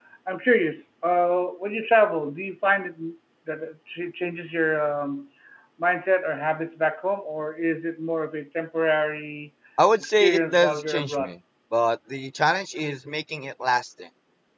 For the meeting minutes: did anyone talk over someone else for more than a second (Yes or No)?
Yes